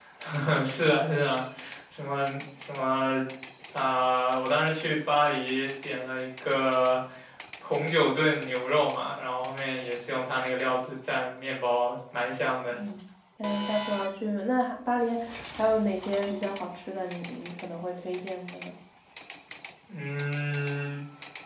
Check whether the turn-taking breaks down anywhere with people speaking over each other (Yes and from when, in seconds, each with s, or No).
No